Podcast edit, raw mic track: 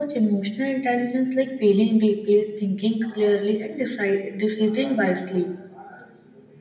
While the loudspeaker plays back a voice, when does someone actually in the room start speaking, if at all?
none

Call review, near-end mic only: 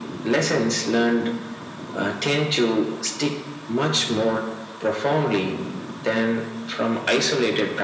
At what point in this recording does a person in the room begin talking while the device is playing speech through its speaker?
none

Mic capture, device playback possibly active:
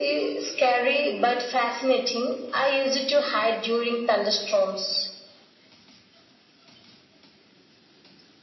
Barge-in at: none

